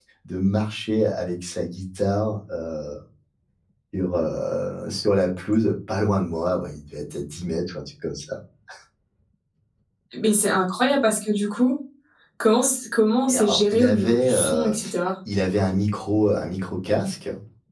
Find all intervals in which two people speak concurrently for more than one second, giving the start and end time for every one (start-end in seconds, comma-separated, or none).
13.3-14.8